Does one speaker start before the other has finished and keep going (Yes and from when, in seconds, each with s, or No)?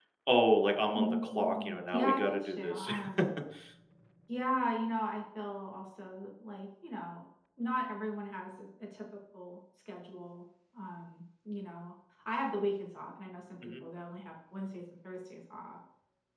Yes, from 0.9 s